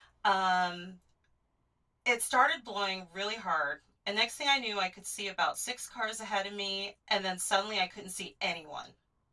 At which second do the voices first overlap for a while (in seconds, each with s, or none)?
none